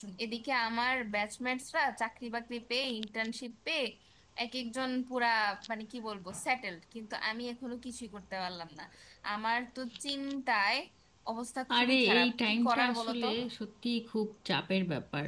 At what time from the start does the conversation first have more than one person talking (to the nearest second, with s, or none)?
12 s